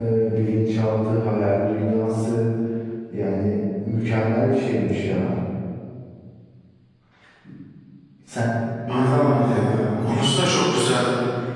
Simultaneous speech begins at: 9 s

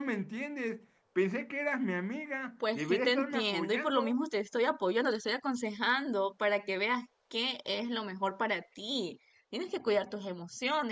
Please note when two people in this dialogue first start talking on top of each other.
3 s

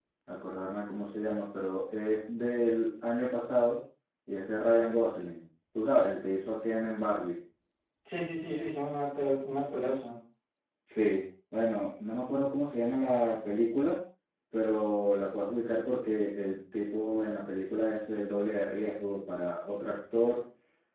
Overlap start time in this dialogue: none

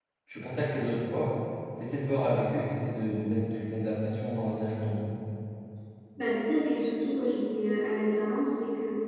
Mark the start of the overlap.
none

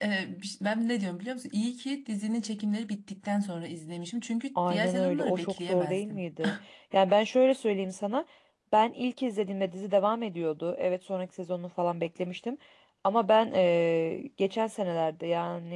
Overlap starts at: 5 s

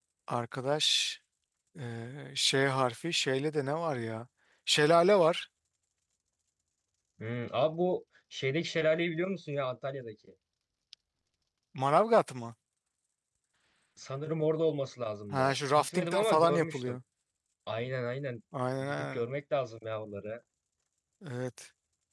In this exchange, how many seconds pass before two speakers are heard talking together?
15 s

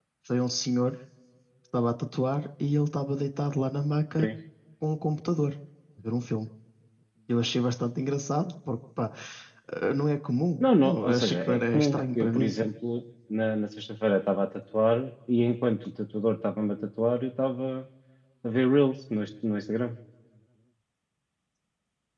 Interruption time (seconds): 11 s

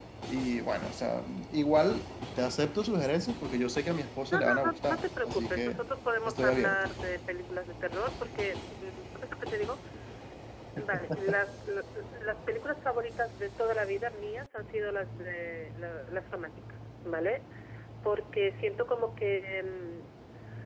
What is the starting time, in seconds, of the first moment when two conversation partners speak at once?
4 s

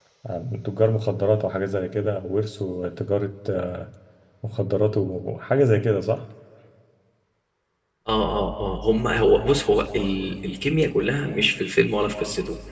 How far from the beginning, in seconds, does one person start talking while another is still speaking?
none

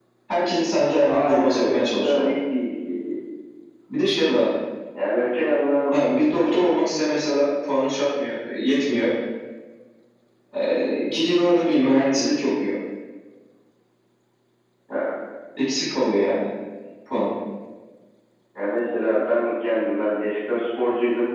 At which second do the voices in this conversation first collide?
1 s

